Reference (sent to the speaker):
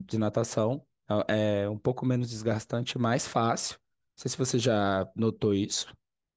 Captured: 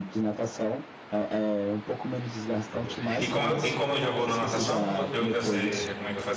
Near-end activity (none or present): present